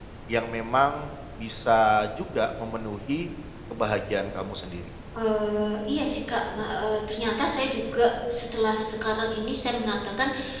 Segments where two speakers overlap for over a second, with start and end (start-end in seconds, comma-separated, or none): none